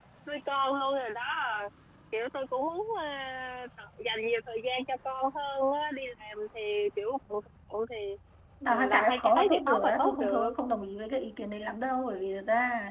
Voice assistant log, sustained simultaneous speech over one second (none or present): present